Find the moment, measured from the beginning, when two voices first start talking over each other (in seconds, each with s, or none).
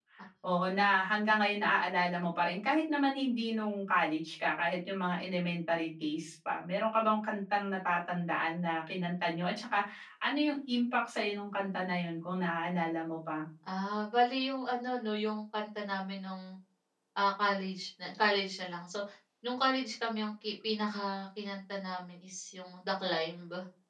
none